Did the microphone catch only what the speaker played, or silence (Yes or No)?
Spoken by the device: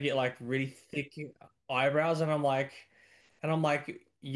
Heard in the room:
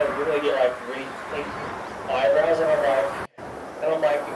Yes